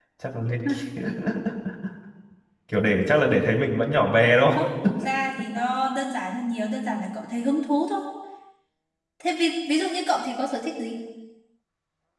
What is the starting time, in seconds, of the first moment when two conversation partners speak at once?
none

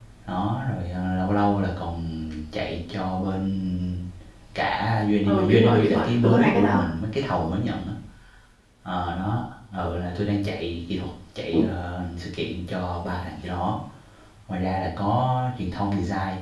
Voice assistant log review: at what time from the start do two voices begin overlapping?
5.3 s

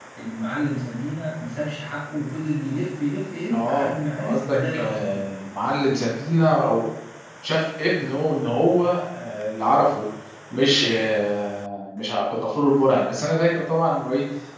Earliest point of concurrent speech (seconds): 3.5 s

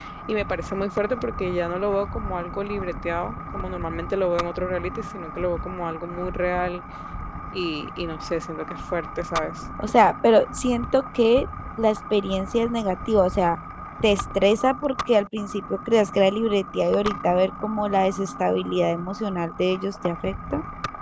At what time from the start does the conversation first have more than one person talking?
none

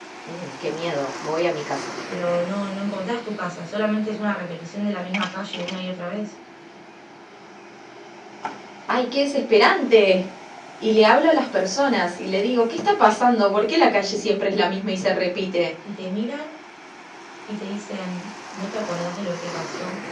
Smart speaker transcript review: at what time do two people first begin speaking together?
none

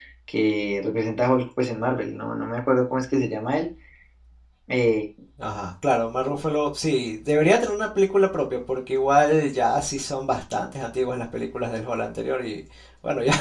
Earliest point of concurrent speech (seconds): none

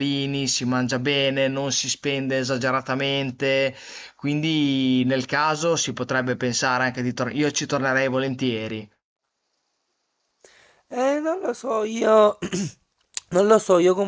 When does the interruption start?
none

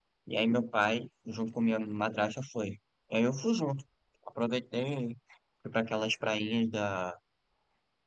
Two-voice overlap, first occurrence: none

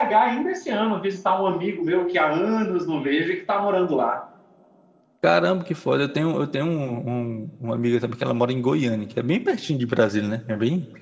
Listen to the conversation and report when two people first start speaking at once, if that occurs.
none

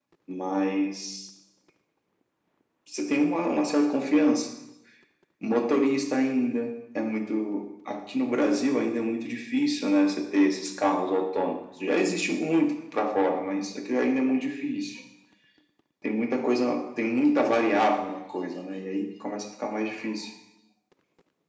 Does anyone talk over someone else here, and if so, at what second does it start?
none

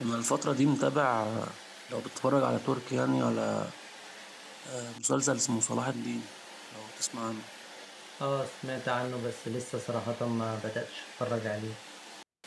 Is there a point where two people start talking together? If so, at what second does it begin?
none

